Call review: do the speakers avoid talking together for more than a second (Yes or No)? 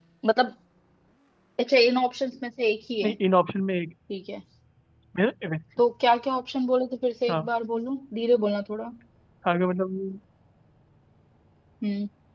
Yes